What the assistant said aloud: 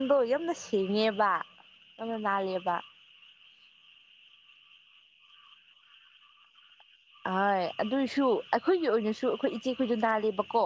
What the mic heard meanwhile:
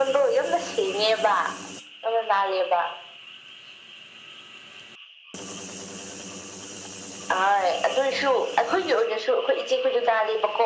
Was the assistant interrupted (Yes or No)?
No